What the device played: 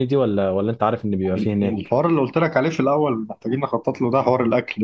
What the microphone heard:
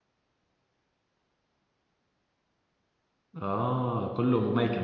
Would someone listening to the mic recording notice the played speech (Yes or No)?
No